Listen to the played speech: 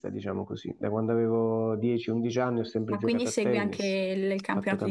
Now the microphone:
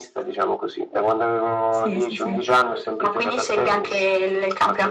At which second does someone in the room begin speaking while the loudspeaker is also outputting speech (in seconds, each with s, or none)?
1.7 s